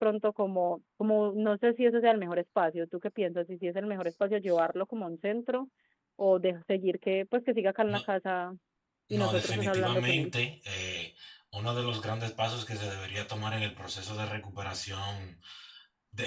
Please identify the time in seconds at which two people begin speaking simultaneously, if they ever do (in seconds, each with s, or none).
9.1 s